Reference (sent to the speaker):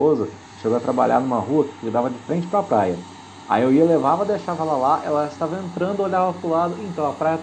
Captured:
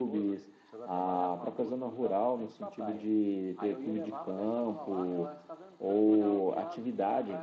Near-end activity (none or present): present